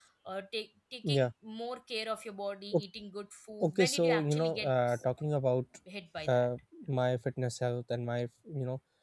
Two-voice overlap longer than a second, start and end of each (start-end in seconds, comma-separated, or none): 3.7-5.0